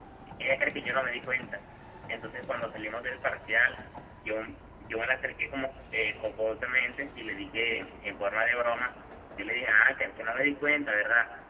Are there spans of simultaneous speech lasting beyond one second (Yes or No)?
No